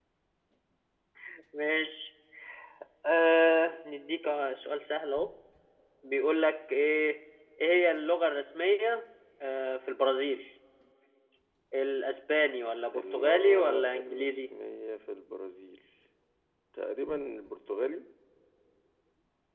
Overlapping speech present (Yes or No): Yes